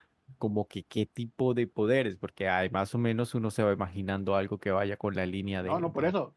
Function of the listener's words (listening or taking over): taking over